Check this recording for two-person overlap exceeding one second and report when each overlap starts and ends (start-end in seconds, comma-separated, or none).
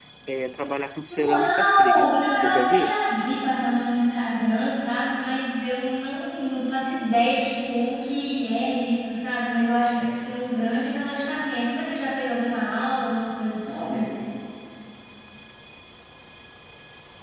1.1-3.0